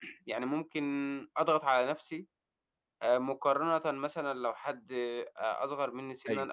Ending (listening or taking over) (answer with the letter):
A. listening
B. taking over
A